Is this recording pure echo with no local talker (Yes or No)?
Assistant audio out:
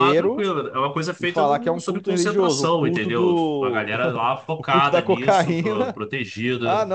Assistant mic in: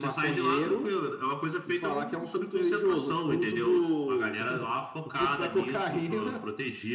Yes